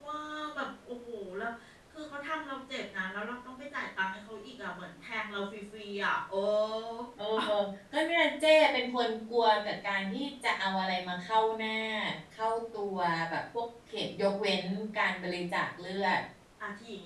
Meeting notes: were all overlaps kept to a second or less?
Yes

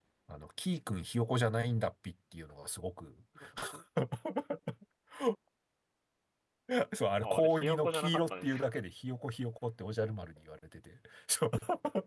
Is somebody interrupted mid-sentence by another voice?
Yes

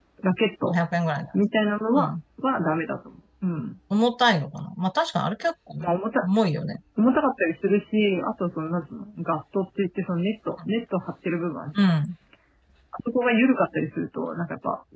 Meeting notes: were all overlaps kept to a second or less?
Yes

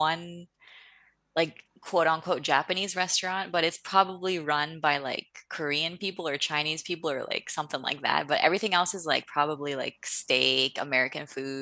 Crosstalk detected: No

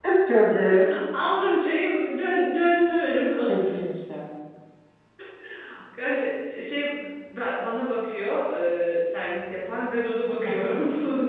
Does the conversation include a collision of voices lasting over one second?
No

